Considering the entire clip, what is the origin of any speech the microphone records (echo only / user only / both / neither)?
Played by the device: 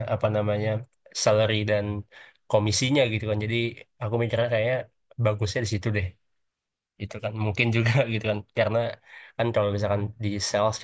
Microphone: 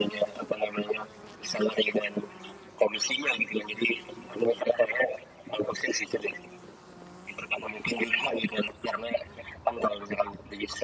echo only